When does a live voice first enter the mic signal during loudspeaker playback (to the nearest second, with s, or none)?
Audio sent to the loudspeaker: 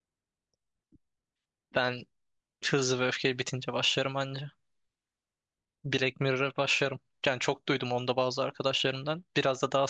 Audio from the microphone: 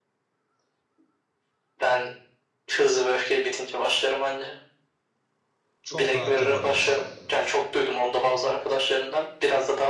6 s